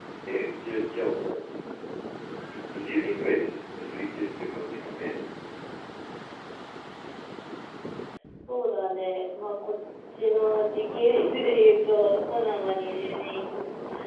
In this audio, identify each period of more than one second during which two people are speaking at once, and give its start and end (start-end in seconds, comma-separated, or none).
none